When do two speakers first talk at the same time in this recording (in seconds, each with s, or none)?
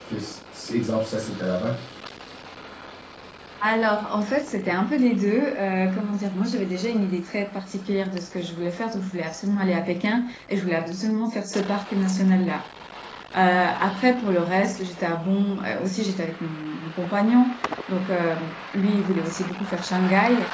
none